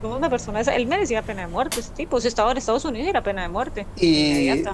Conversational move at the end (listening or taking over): taking over